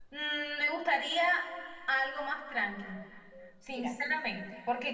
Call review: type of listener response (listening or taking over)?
listening